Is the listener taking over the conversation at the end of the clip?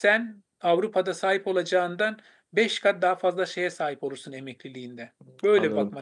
Yes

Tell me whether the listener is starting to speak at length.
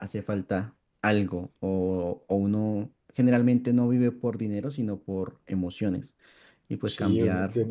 Yes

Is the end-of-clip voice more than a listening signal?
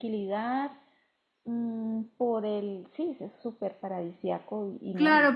Yes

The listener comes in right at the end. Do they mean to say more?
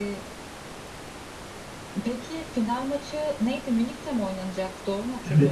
Yes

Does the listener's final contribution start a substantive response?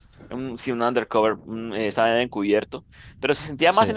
No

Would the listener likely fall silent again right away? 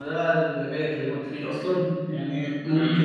Yes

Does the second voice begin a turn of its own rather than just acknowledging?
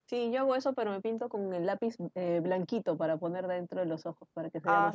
Yes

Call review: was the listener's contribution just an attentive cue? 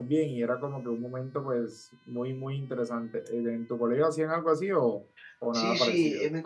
No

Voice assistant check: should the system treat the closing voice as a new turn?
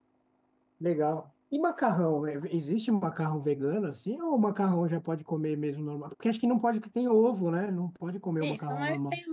Yes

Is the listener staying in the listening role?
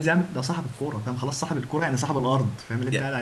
No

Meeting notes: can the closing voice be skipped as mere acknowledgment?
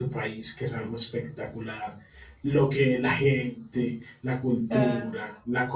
Yes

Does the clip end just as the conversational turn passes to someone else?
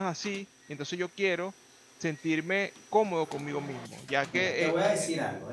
Yes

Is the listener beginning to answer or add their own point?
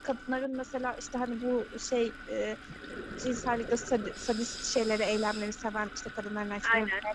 No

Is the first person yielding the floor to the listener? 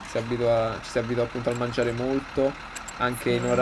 No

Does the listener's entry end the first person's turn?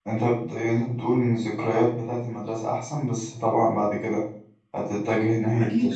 Yes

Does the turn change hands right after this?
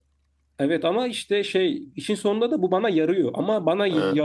No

